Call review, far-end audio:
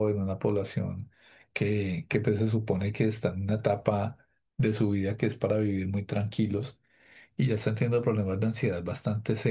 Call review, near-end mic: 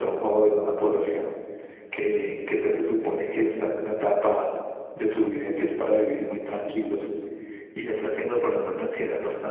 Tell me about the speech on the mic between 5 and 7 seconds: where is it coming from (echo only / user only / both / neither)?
echo only